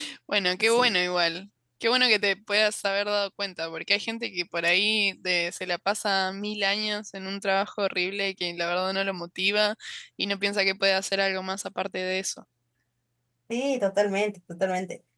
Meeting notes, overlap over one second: none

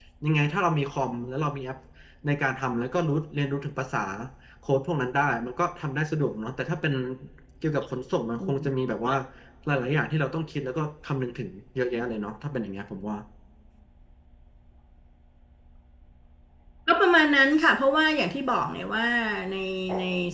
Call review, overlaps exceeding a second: none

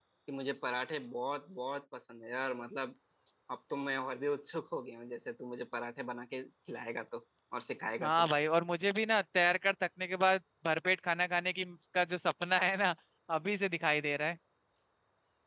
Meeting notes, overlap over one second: none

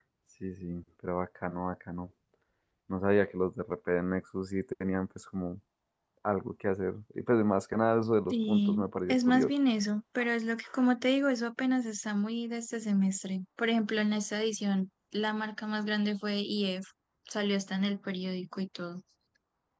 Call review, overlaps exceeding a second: present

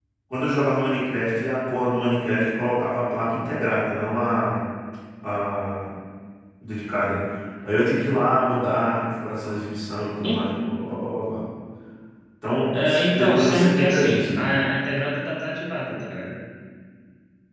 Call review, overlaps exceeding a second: present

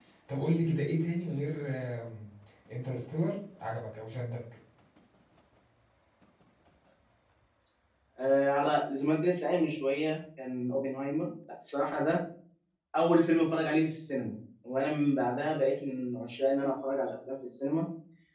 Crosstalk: none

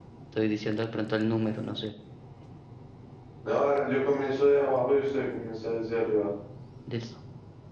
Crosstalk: none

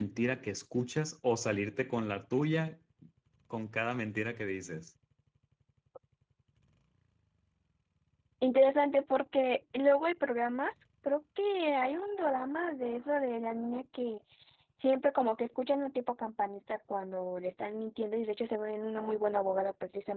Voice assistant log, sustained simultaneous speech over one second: none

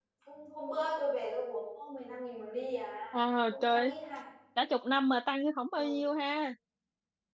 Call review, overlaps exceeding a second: none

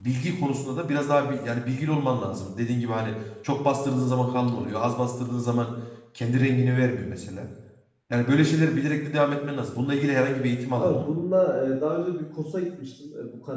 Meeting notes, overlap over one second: none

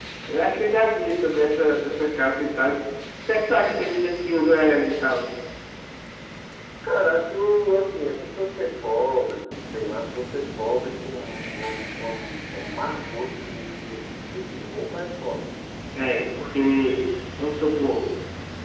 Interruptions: none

